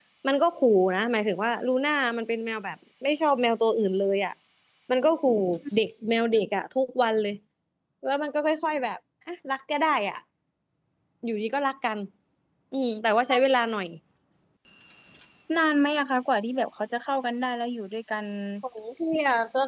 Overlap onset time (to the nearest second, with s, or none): none